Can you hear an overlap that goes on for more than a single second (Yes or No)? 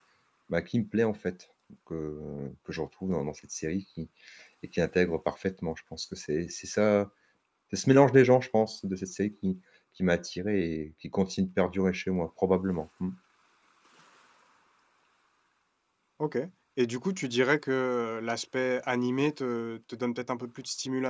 No